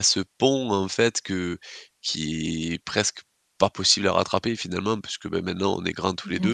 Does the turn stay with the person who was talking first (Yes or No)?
Yes